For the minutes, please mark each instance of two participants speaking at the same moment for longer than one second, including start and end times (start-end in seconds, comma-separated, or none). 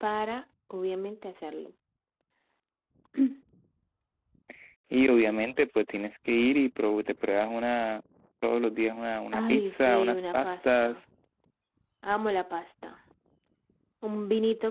9.3-11.0